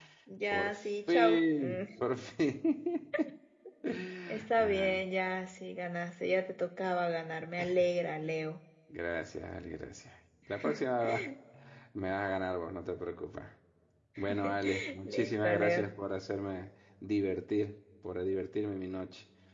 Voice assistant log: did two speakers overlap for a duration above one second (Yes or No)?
Yes